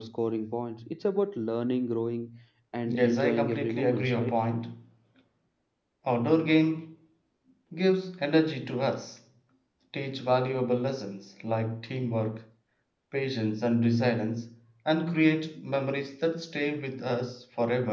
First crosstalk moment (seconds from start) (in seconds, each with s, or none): 2.9 s